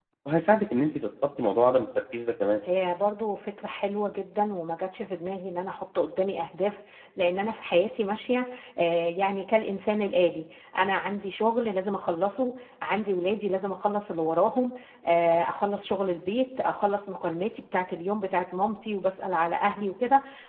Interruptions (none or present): none